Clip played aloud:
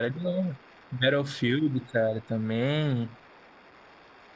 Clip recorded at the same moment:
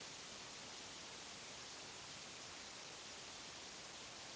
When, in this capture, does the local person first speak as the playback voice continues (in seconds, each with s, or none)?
none